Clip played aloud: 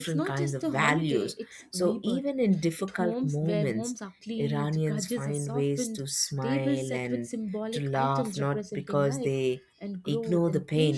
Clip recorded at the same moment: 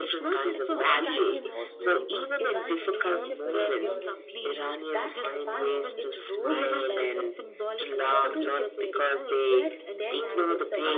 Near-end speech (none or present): present